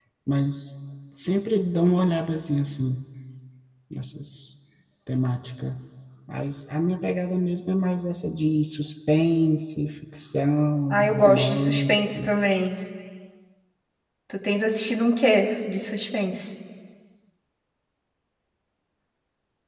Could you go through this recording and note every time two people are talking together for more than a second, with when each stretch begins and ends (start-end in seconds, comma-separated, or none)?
10.9-12.2